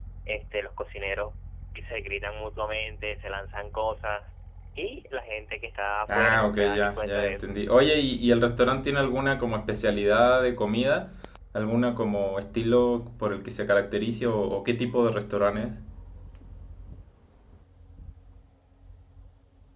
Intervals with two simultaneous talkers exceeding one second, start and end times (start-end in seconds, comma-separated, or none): 6.1-7.5